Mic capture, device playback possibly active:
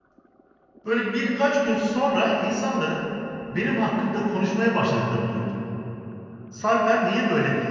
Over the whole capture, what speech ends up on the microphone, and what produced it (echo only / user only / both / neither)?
user only